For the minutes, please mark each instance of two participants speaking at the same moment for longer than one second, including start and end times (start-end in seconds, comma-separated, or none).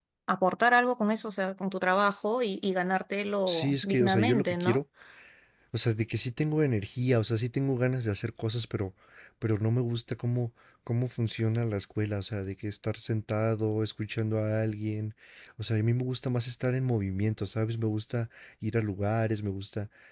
3.5-4.8